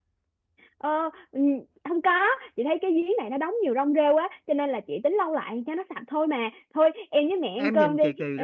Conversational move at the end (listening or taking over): taking over